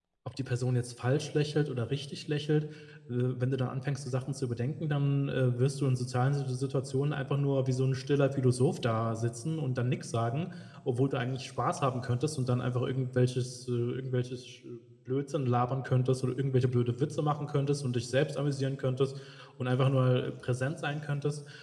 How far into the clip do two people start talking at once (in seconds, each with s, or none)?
none